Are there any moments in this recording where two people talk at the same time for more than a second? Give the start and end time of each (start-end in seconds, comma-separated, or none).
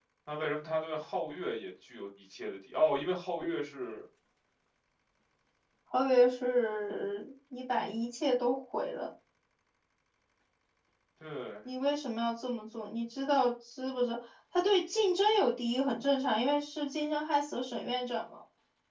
none